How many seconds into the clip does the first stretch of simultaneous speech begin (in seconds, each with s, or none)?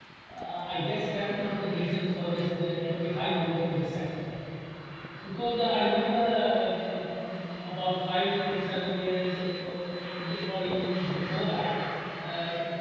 none